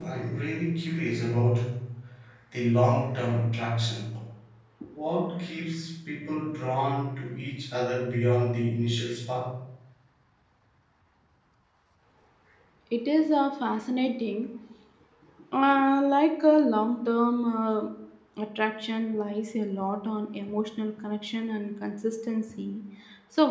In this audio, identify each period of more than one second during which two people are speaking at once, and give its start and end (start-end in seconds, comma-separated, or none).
none